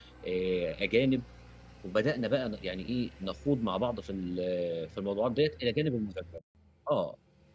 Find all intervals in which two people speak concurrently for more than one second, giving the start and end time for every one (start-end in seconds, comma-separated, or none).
none